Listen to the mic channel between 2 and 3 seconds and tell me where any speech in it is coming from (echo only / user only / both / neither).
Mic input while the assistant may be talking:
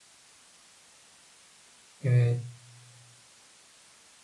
user only